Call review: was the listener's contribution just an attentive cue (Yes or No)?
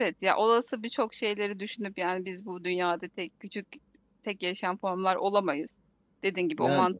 Yes